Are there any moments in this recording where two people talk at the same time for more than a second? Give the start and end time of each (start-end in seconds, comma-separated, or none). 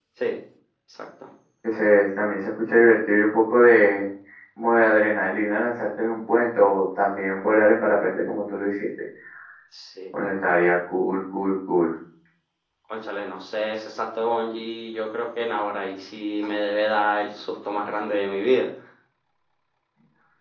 none